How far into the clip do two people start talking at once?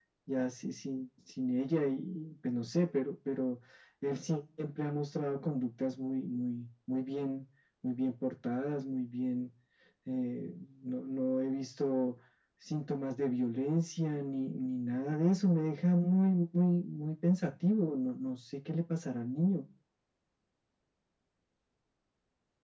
none

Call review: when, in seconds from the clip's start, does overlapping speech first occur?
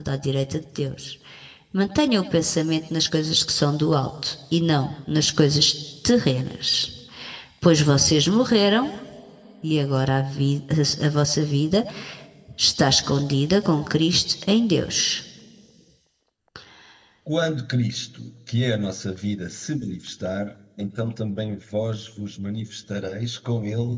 none

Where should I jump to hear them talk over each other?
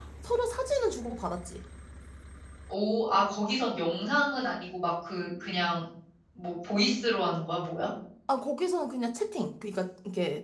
none

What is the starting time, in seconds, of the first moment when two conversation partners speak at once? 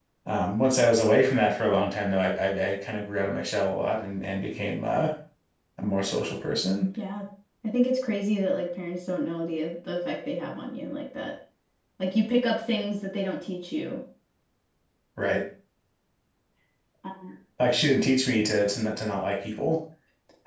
none

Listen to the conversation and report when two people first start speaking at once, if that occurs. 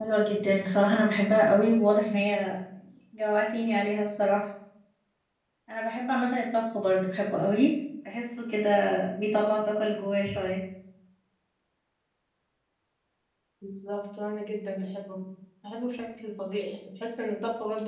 none

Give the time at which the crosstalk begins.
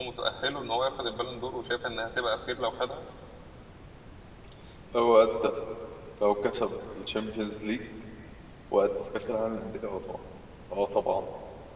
none

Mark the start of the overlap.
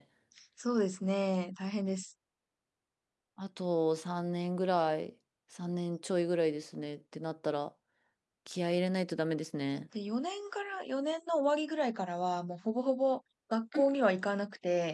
none

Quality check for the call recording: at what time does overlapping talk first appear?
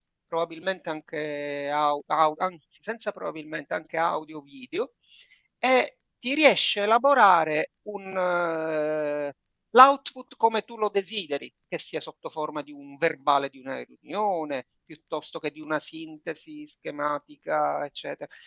none

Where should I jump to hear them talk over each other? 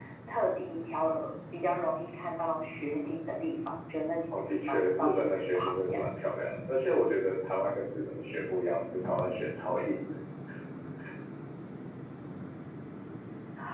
4.3 s

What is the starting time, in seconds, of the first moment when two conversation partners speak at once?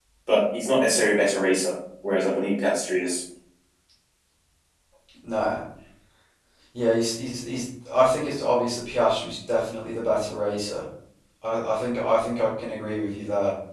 none

